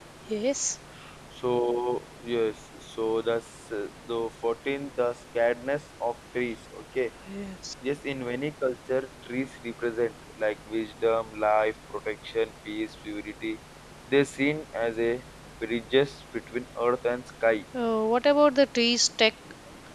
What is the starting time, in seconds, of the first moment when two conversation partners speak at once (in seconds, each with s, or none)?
none